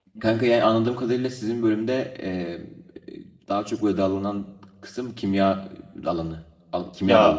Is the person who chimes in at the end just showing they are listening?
No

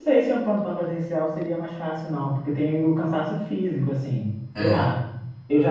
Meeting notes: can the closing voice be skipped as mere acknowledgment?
Yes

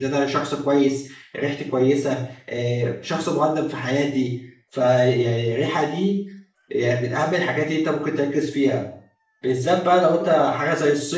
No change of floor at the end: Yes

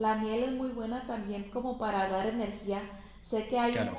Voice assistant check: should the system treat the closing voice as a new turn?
Yes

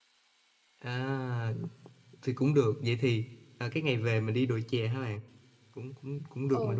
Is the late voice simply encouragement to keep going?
No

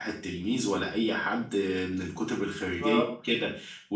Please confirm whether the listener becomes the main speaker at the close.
No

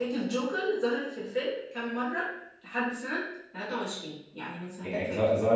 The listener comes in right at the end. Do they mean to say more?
Yes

